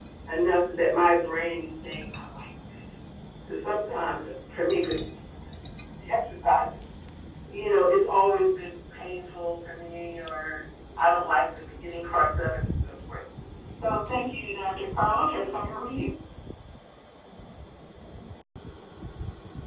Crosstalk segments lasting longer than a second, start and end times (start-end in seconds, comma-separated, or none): none